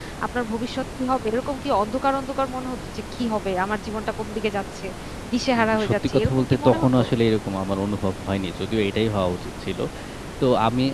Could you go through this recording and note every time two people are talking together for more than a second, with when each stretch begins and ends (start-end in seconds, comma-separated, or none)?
5.6-6.9